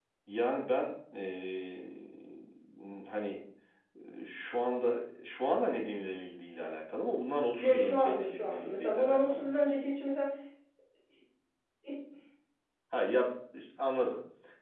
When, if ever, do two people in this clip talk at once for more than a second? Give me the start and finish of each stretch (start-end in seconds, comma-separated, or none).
7.6-9.6